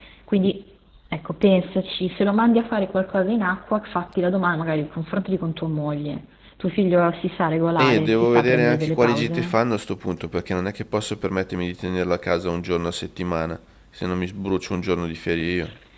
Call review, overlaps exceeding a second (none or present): present